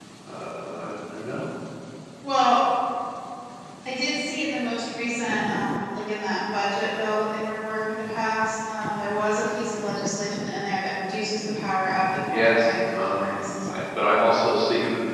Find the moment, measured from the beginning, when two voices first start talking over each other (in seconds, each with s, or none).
12.3 s